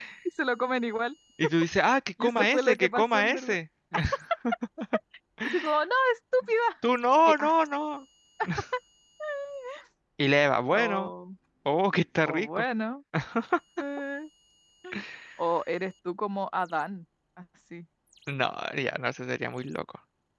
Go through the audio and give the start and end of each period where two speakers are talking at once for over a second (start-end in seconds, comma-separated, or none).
2.2-3.6